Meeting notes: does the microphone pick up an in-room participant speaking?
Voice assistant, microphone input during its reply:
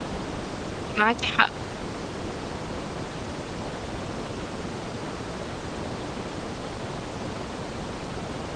Yes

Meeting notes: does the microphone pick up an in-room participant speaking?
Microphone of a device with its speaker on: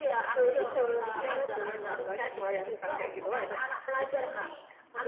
No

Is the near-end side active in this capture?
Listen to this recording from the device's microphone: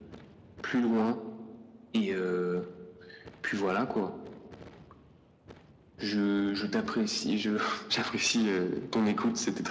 No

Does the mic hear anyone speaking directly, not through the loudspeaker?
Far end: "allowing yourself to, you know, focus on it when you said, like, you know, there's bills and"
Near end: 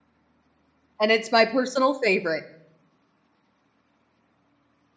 Yes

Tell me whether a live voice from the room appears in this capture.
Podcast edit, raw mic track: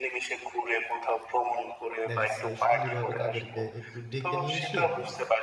Yes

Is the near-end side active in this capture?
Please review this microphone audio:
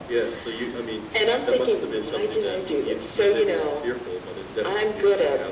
No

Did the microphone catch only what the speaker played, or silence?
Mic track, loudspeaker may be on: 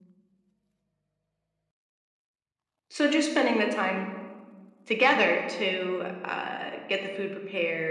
Yes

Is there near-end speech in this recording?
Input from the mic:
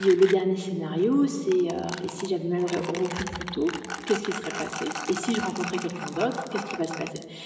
Yes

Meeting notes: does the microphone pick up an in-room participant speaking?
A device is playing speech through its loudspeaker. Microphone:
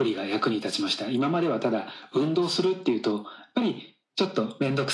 No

